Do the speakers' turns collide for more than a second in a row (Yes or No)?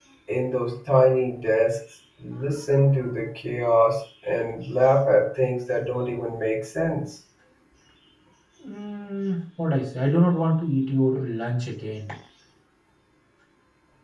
No